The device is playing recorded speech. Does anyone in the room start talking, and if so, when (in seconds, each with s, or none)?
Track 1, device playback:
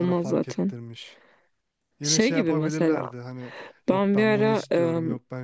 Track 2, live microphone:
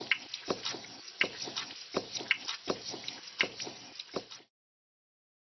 none